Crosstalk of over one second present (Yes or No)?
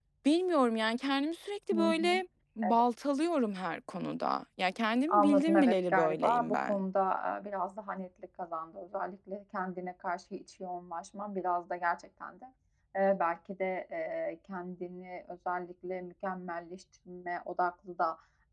Yes